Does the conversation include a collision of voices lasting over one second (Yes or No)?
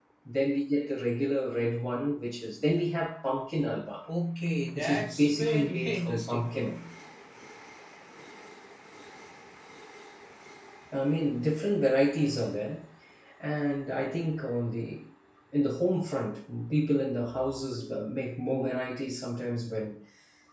Yes